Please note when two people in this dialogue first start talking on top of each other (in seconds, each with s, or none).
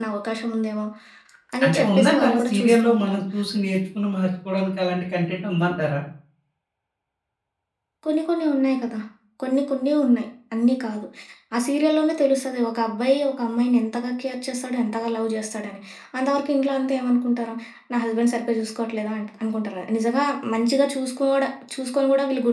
1.6 s